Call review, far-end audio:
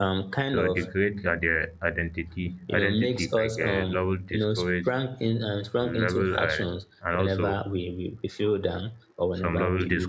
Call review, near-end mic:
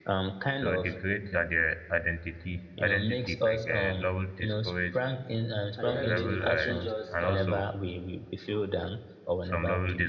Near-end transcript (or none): at the end of the day the person just um